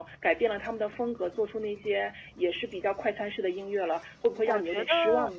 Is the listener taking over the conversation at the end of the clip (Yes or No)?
Yes